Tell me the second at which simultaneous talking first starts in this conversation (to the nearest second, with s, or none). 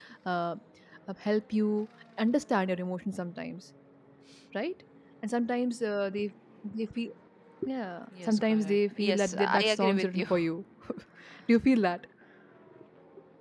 8 s